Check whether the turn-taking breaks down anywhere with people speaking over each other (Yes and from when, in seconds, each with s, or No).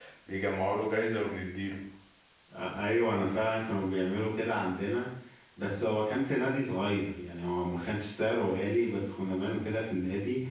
No